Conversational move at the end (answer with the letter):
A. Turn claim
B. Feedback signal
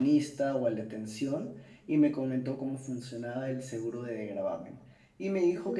B